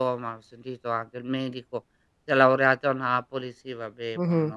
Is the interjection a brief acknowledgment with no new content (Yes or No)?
No